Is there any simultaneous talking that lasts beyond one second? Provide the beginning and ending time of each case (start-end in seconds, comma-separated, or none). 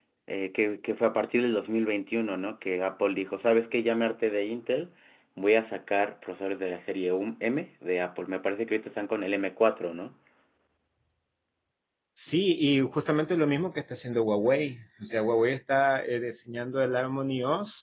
none